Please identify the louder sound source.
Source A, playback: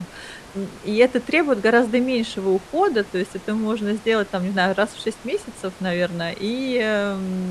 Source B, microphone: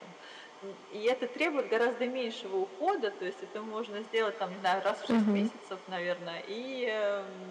user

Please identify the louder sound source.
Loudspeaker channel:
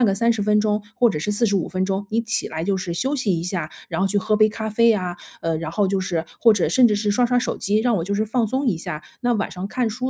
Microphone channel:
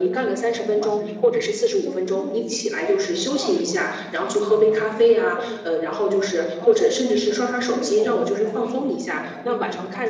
echo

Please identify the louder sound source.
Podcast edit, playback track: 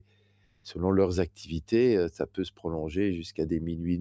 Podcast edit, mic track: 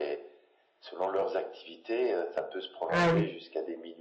user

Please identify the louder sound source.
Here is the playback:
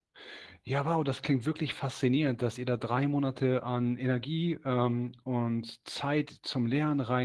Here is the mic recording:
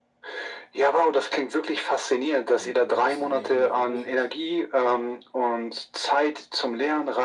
echo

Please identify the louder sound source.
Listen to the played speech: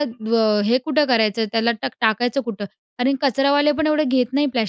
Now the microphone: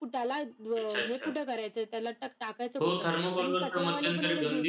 user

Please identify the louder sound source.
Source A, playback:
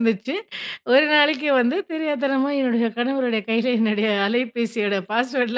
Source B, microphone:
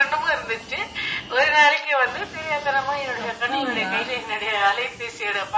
echo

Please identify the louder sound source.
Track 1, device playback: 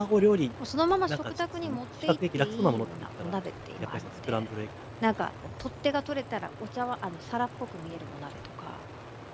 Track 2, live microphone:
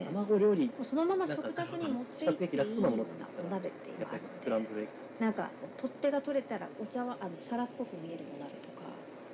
echo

